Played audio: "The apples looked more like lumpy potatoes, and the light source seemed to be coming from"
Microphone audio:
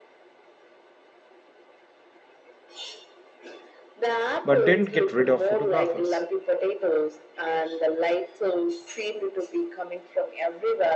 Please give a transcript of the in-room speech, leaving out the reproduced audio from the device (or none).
but didn't get rid of photographers.